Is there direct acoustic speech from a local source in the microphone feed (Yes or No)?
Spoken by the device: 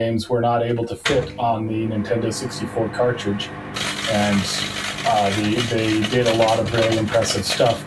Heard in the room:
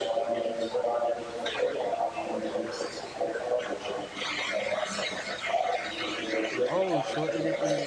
Yes